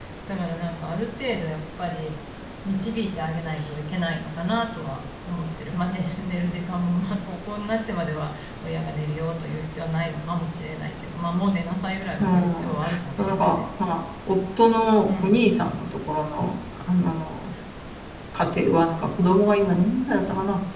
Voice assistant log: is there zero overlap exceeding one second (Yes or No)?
No